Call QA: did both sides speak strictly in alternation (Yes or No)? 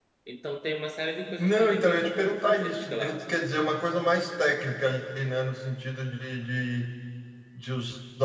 No